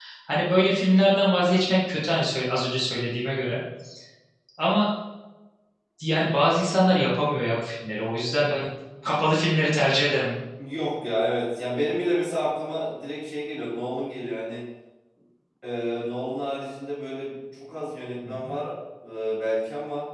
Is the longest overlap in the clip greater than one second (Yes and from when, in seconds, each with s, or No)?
No